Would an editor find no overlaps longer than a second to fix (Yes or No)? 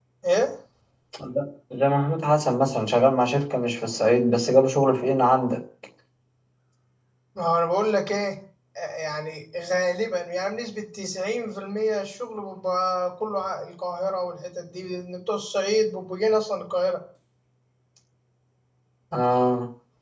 Yes